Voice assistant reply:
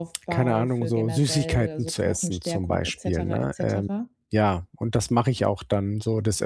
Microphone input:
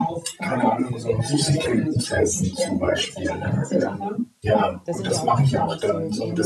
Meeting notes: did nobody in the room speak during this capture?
No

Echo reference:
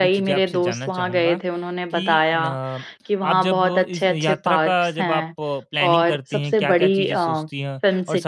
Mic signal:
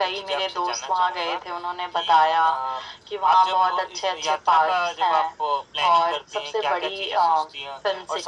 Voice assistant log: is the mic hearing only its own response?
Yes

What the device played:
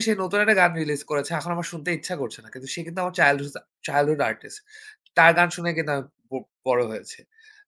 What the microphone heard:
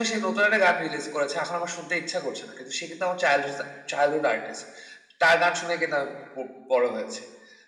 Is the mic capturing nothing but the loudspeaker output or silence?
Yes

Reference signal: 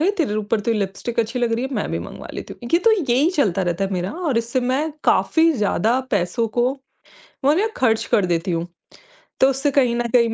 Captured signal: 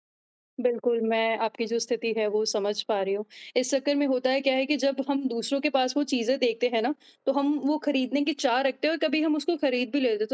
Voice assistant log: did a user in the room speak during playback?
Yes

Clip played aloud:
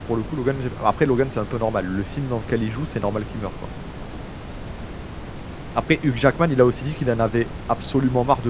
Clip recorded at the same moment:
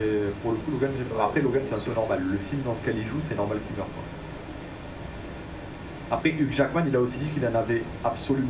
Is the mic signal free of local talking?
No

